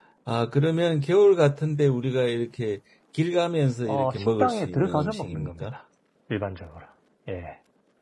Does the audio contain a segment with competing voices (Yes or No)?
Yes